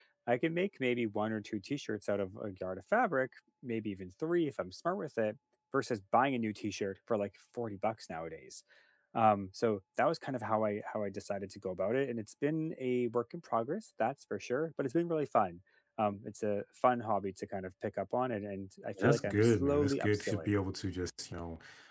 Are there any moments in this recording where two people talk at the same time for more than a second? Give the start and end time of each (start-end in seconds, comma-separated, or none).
19.0-20.6